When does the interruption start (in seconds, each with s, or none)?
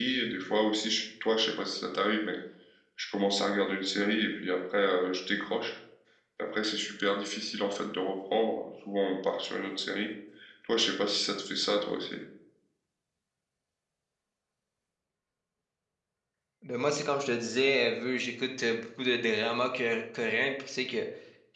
none